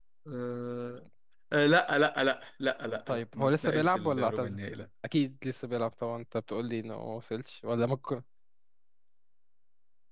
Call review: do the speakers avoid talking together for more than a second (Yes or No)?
No